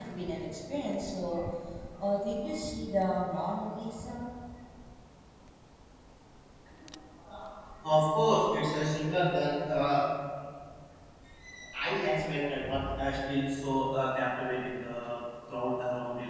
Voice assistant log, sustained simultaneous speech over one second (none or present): none